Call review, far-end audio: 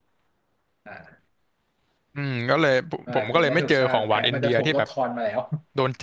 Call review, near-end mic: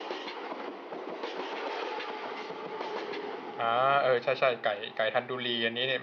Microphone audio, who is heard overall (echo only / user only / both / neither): user only